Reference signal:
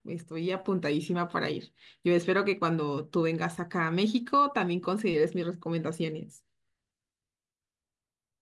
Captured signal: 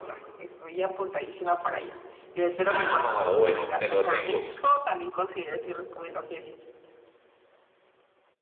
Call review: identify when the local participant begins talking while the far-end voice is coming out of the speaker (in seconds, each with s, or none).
2.7 s